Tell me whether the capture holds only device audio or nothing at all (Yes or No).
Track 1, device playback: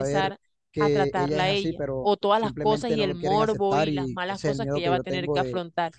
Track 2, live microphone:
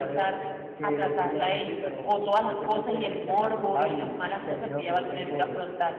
Yes